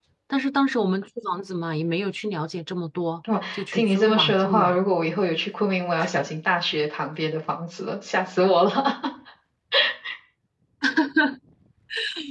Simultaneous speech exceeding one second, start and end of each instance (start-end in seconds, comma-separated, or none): 3.5-4.8